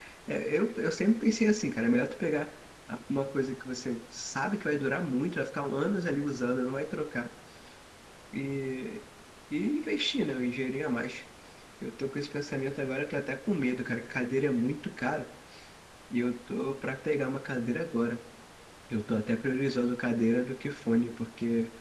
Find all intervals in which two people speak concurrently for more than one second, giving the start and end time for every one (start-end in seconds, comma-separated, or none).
none